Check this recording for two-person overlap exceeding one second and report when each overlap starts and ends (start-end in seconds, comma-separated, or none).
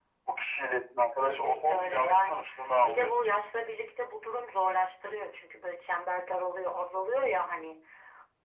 1.2-2.5